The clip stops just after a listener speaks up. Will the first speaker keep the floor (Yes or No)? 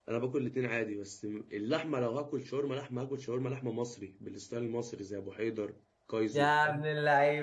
No